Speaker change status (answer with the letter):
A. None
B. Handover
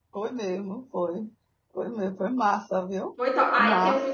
B